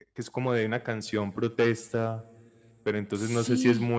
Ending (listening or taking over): listening